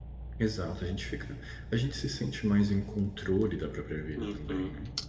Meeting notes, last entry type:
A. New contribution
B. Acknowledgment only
A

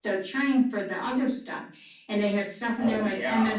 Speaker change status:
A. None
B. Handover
A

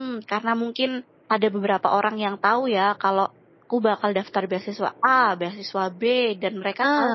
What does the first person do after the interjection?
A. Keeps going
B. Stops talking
A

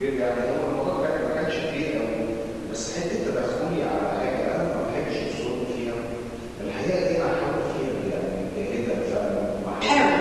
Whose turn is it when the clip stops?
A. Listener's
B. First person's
B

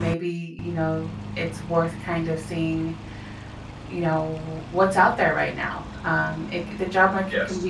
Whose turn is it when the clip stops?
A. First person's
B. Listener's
A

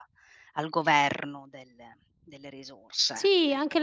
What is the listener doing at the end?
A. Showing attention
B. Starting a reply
B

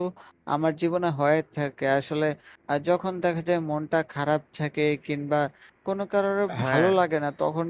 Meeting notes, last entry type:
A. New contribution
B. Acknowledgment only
B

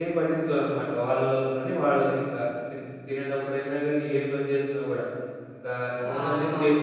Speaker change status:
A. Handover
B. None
B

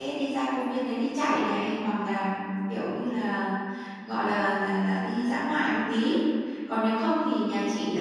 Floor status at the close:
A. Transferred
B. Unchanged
B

